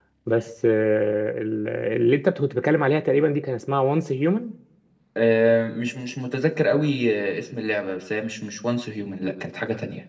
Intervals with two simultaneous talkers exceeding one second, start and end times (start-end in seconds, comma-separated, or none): none